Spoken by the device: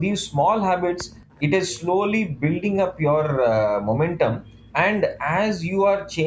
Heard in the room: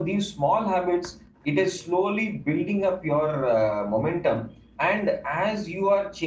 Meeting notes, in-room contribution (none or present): none